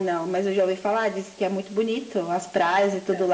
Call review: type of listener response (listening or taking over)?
listening